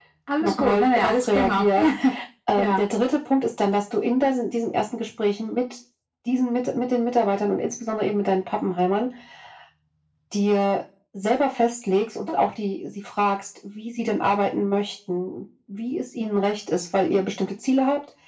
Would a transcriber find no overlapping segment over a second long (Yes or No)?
No